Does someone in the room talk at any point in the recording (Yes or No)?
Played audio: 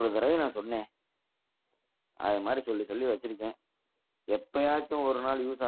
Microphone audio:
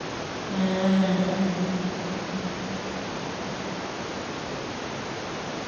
Yes